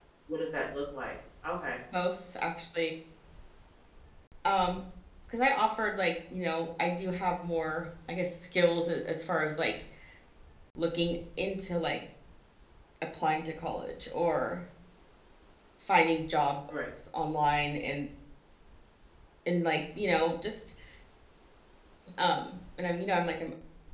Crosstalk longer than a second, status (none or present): none